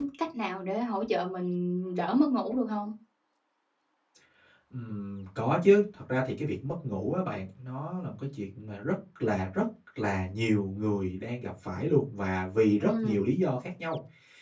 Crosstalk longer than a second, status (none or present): none